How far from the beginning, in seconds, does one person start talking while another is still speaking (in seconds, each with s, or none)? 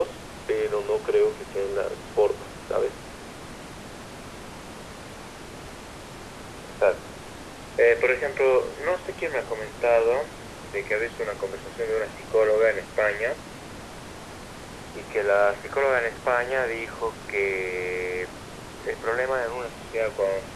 none